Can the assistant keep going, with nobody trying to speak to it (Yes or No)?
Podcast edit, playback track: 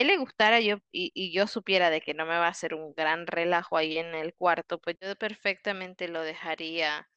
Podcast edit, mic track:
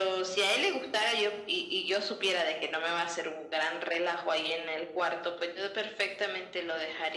Yes